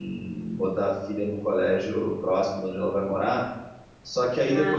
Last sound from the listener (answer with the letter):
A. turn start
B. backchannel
B